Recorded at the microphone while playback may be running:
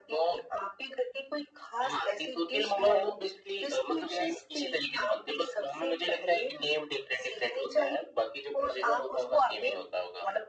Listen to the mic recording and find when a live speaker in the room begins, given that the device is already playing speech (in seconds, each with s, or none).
none